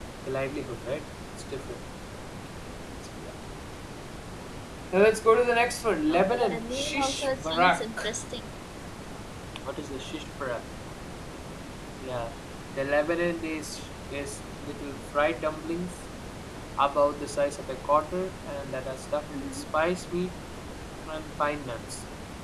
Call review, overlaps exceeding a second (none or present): present